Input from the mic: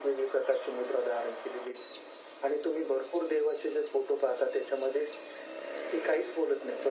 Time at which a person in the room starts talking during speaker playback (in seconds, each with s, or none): none